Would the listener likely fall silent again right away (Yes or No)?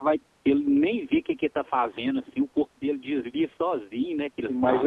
No